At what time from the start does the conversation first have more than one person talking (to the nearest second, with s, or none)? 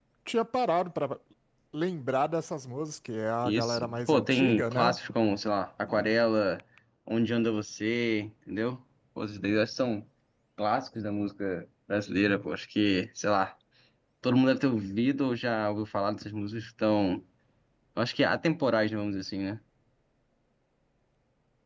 3 s